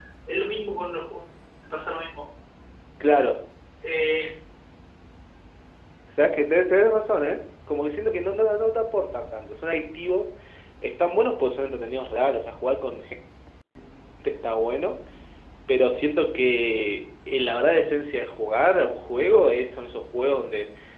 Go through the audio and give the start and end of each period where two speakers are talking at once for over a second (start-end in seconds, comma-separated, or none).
none